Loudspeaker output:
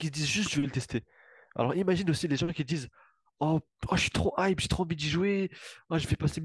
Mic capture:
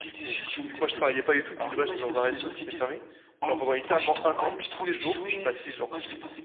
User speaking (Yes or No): Yes